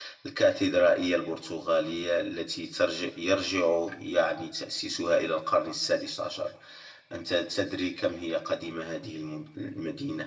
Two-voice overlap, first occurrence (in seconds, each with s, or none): none